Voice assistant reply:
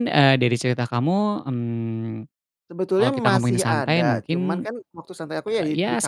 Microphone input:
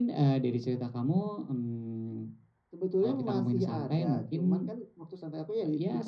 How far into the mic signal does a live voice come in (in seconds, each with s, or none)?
none